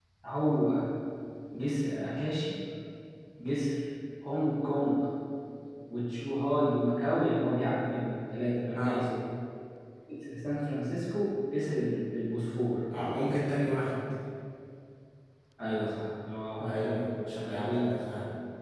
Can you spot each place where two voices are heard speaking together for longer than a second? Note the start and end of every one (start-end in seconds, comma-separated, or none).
16.6-17.9